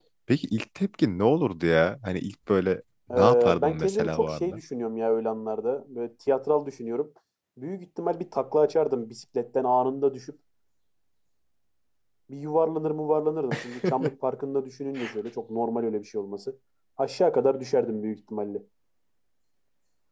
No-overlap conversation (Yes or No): No